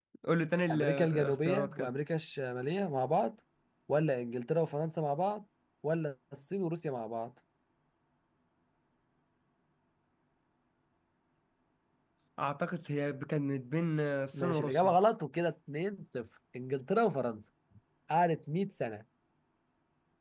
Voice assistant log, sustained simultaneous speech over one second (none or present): present